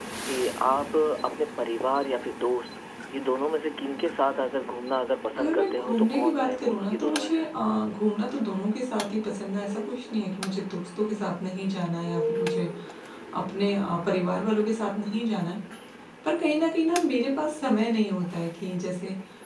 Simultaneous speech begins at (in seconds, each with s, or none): 5.3 s